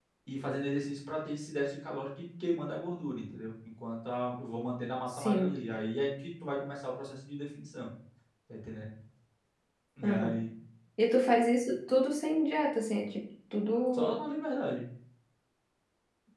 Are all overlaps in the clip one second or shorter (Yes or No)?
Yes